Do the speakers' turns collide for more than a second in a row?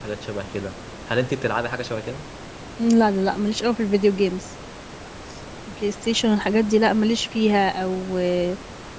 No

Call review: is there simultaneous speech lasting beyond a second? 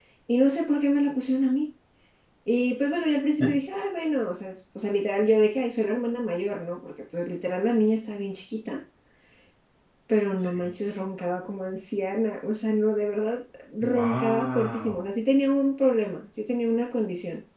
Yes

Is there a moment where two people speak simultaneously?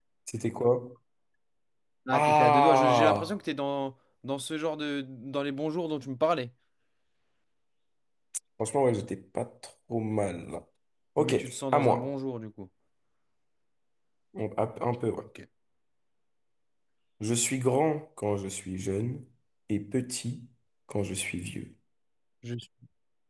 Yes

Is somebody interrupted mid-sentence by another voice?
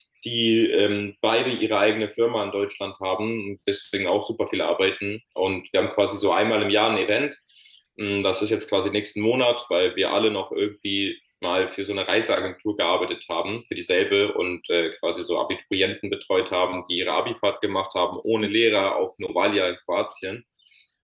No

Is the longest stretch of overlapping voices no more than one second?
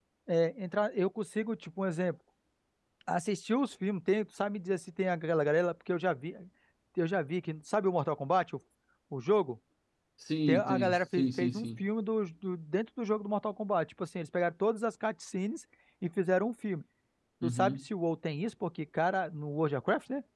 No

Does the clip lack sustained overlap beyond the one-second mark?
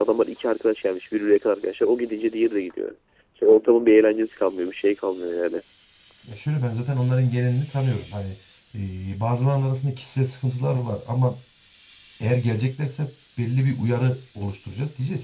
Yes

